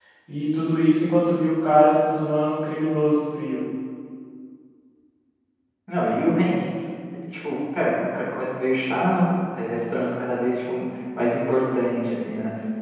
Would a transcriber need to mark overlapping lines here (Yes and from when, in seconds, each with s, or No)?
No